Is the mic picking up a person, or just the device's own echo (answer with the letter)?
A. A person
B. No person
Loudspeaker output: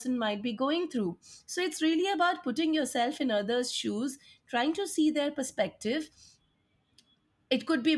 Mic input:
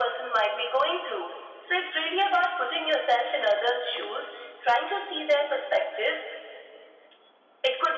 B